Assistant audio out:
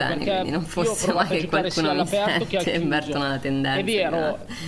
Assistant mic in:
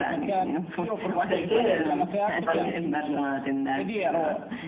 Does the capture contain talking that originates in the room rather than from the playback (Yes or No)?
Yes